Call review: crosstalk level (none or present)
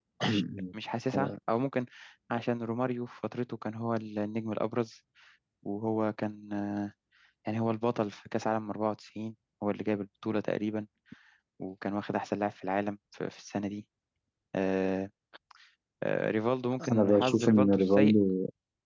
present